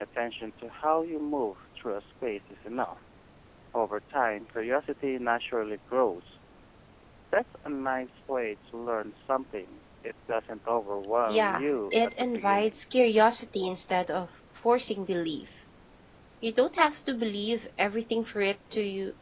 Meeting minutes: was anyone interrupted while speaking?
Yes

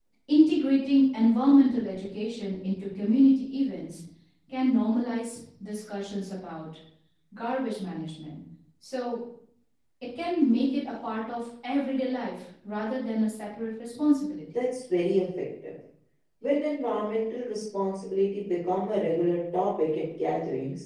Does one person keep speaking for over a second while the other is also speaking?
No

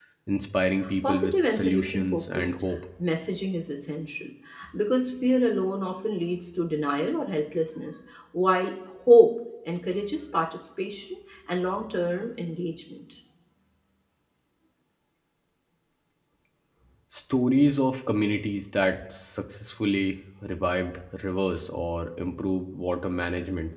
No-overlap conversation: No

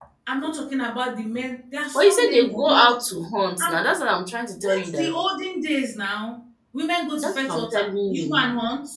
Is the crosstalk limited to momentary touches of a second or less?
No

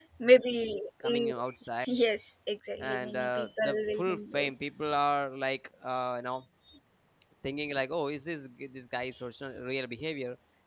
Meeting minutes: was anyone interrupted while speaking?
Yes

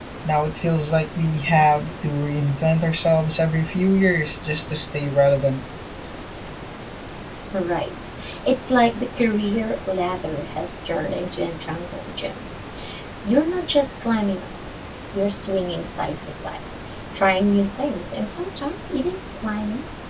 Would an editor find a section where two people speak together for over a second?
No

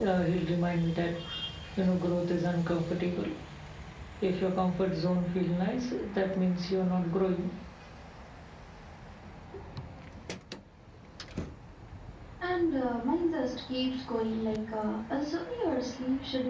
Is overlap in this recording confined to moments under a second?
Yes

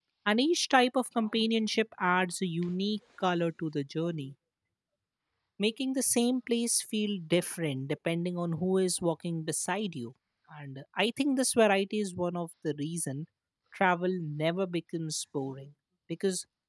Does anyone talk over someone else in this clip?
No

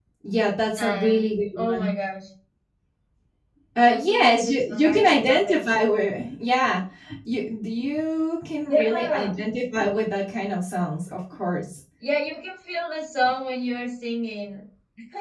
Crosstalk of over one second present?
Yes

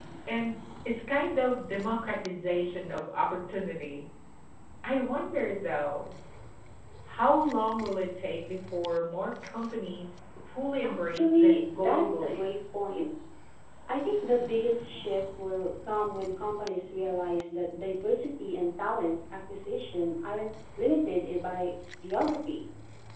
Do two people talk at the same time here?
Yes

